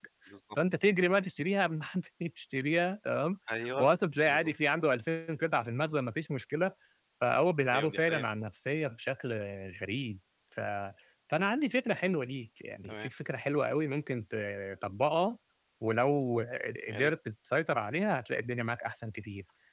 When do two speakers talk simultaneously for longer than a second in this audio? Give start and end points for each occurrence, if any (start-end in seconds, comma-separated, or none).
none